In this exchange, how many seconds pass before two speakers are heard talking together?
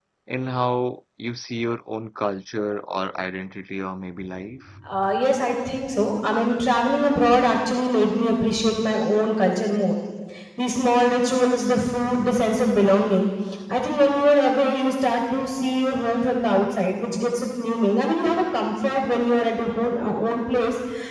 none

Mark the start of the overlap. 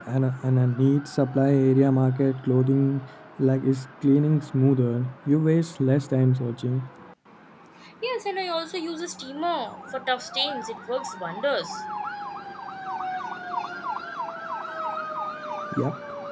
none

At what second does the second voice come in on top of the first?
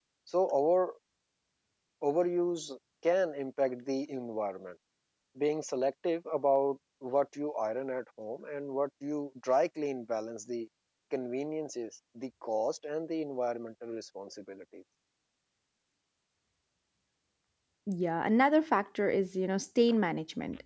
none

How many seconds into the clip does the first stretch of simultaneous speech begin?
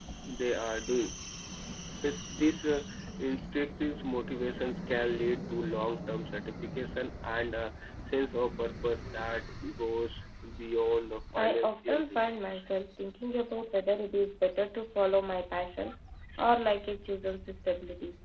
11.3 s

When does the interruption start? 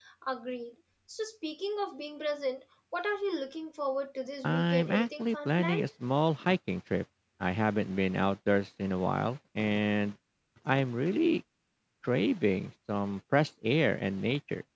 4.4 s

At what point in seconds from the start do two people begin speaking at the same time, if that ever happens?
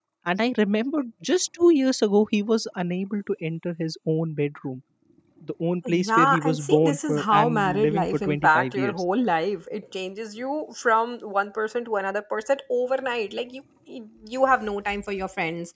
5.9 s

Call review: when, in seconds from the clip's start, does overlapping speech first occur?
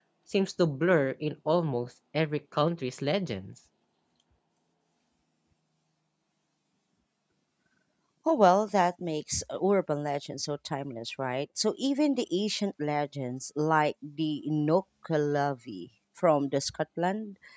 none

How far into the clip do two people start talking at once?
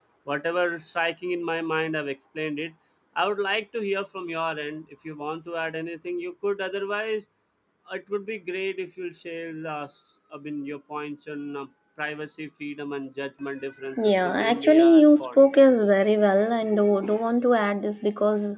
13.8 s

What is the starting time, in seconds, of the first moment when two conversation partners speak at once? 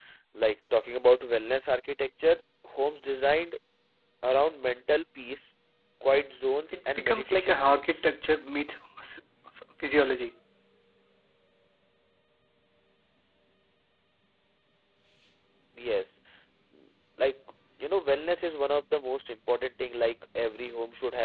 6.7 s

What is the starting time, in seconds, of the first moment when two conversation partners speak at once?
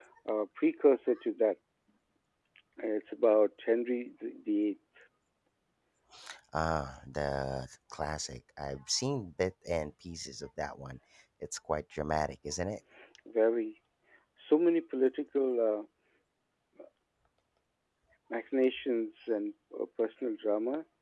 none

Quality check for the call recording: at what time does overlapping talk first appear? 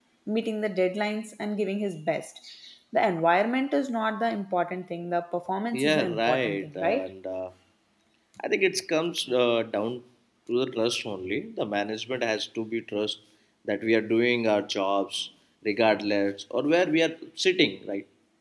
5.7 s

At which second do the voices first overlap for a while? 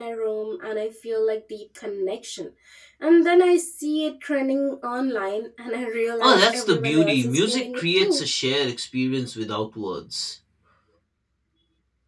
6.2 s

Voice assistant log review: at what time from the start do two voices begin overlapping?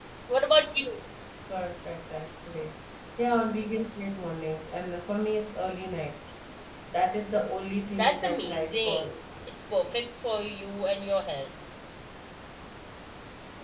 7.9 s

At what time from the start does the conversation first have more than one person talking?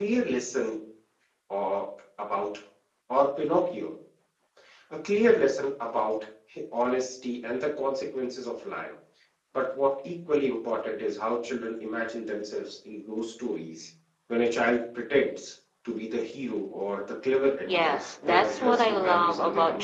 17.7 s

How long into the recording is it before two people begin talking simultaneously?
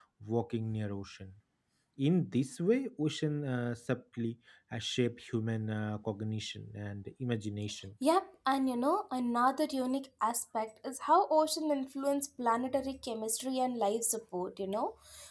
none

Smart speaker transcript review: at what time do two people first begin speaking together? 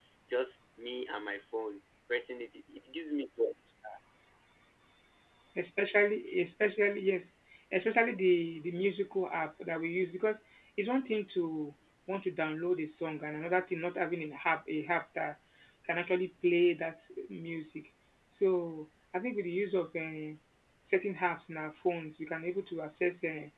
none

